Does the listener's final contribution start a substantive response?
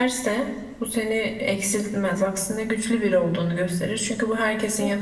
Yes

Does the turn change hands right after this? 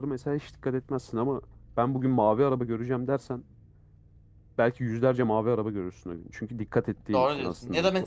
Yes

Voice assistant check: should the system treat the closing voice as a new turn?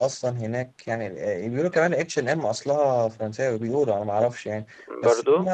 No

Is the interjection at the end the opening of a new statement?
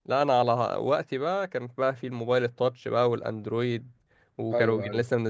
No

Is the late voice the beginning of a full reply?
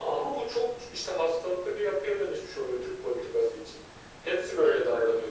No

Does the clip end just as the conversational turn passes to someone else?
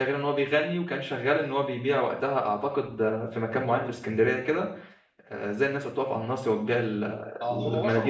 Yes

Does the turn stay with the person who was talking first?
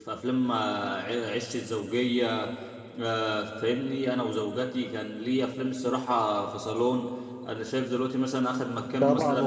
No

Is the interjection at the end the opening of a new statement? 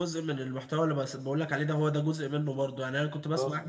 No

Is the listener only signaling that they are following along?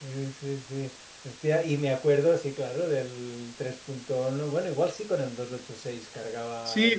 No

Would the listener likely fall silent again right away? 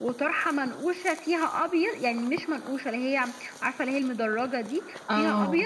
Yes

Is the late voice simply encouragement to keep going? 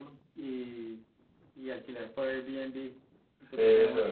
Yes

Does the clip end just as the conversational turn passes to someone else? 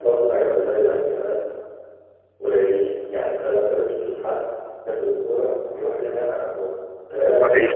No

